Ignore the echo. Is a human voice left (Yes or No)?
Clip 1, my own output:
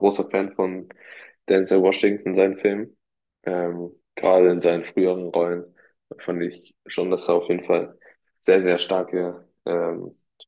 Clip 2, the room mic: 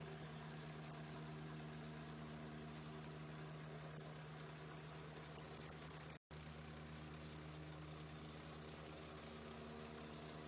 No